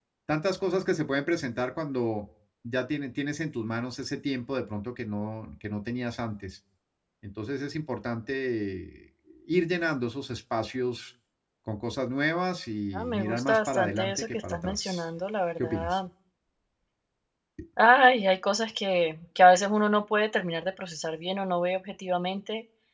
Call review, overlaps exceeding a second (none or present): present